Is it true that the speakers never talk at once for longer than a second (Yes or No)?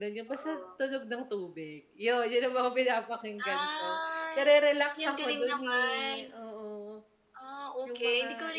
No